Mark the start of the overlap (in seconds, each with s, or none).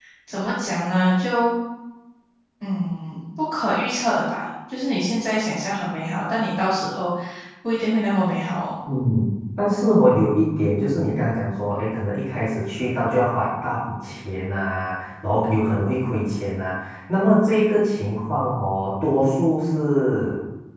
none